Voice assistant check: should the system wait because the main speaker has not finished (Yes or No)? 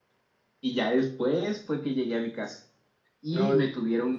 Yes